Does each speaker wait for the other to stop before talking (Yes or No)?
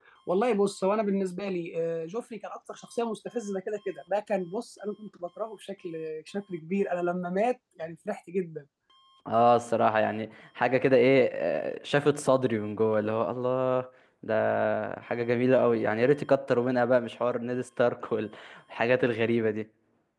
Yes